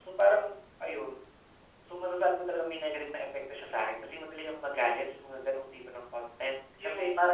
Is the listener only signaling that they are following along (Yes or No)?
No